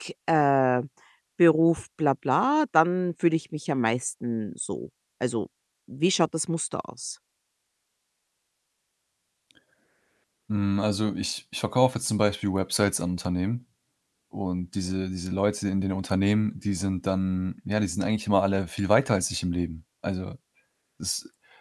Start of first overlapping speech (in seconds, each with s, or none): none